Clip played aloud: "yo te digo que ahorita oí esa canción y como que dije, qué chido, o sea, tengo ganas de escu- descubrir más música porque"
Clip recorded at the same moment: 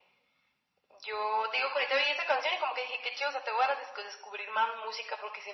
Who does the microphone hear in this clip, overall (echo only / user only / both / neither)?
echo only